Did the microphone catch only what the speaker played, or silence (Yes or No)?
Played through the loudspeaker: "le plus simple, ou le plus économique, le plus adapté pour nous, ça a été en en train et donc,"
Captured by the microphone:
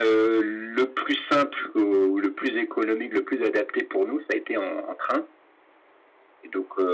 Yes